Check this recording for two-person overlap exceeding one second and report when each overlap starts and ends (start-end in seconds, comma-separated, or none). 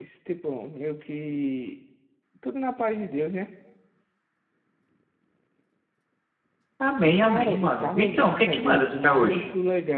7.2-9.5